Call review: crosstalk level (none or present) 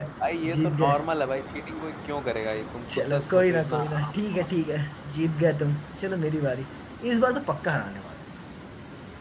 present